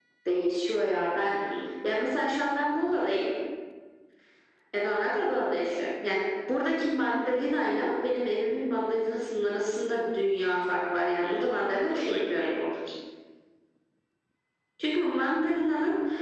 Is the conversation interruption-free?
No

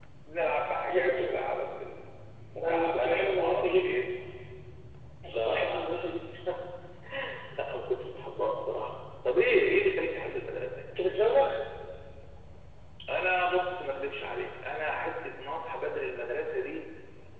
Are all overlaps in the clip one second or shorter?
No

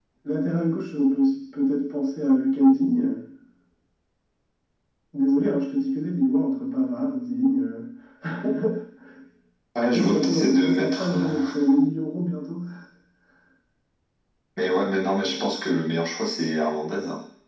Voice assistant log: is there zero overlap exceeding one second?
No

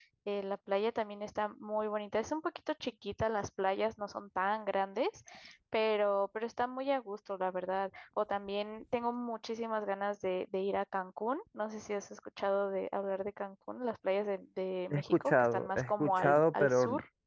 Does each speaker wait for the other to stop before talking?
No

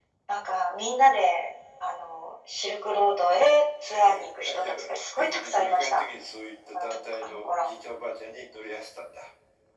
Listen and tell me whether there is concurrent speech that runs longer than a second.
Yes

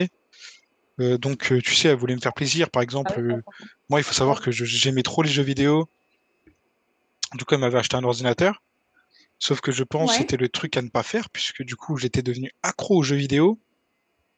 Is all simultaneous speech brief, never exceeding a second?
Yes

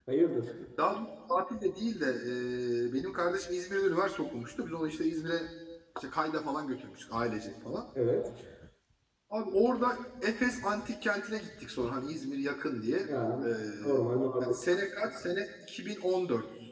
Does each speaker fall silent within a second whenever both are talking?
Yes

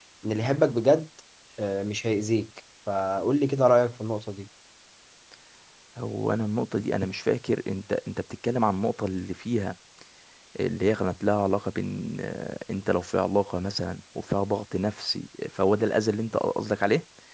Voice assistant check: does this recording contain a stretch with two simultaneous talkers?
No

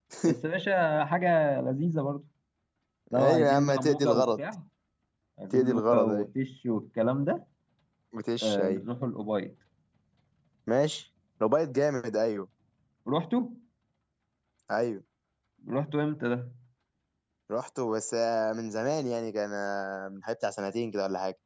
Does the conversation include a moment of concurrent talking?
Yes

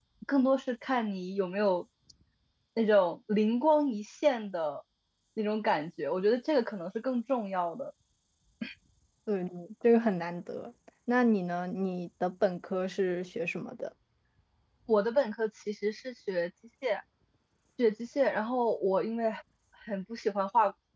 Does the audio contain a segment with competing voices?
No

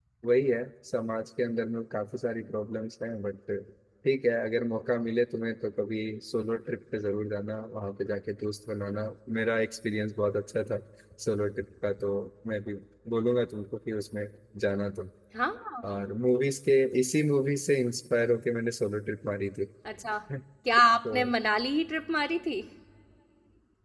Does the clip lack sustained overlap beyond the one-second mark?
Yes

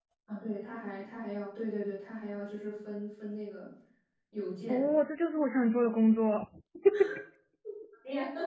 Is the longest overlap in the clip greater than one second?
No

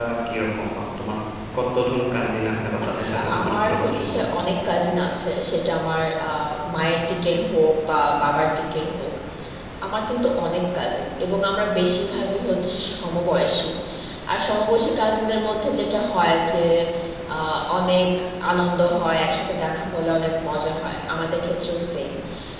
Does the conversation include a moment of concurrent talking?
Yes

